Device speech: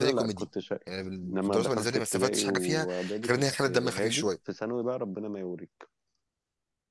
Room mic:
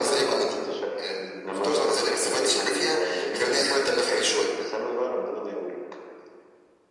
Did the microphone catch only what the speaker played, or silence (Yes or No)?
No